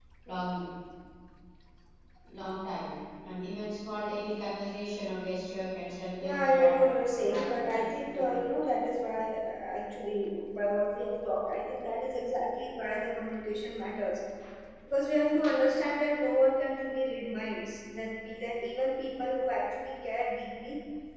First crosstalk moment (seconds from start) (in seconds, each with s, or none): 6.2 s